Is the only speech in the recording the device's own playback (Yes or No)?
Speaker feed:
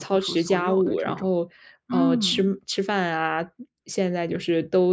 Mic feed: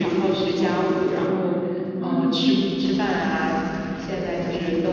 Yes